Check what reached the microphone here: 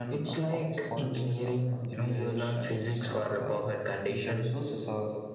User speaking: Yes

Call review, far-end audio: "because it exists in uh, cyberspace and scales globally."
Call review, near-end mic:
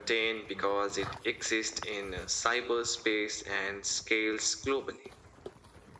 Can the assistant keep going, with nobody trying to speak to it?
Yes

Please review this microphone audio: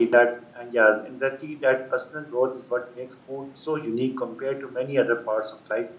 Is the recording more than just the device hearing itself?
Yes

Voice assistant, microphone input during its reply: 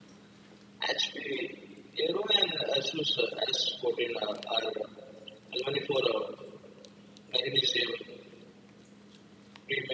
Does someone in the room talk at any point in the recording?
No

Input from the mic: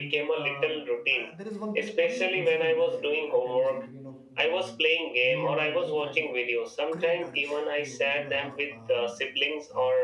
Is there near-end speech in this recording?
Yes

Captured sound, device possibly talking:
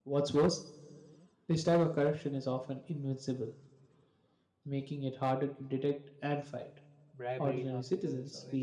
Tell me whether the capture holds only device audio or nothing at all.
No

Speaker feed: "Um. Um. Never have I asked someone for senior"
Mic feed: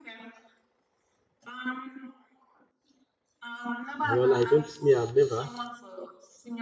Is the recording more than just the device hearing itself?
Yes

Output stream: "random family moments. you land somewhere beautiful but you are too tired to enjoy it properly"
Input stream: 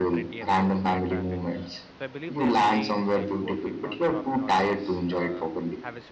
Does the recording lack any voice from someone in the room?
No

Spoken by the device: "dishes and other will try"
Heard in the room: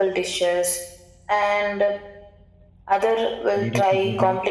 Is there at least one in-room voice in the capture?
Yes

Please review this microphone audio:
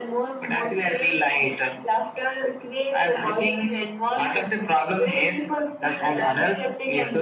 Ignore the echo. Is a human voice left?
No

